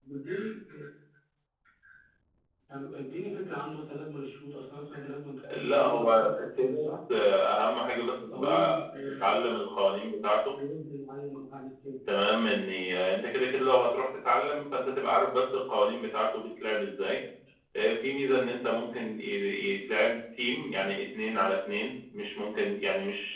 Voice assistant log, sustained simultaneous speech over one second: present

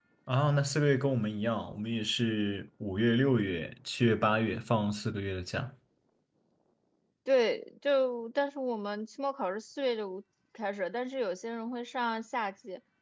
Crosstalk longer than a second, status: none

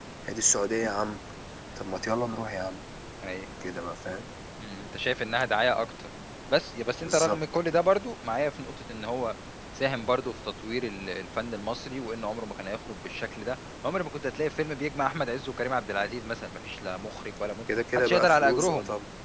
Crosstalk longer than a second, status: present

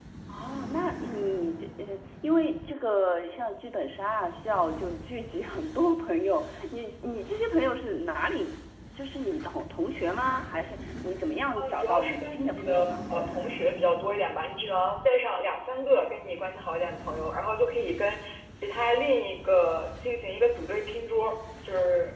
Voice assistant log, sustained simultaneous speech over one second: present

